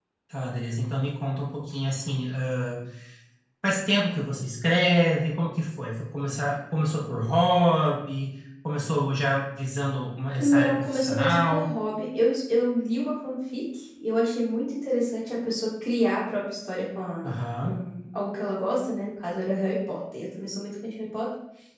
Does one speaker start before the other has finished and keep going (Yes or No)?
Yes